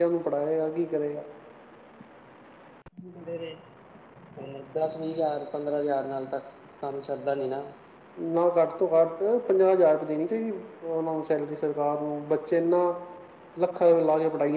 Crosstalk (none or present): none